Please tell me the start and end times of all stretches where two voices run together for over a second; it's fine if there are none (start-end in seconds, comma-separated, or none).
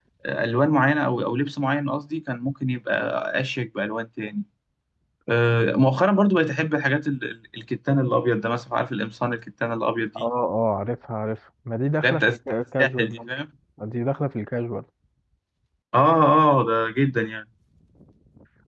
12.0-13.3